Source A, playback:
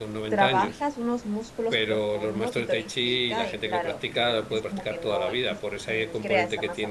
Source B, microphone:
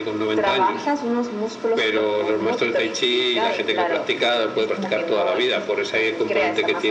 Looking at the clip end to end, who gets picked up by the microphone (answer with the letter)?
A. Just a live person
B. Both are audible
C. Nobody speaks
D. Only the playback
D